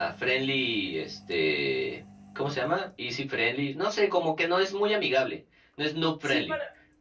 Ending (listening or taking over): taking over